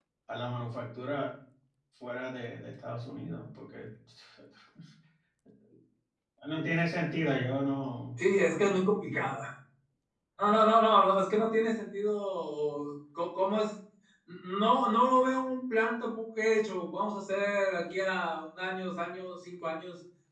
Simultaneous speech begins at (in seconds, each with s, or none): none